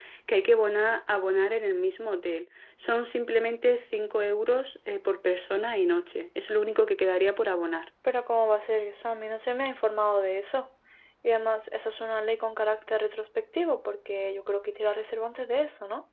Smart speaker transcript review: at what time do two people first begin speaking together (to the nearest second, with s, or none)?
none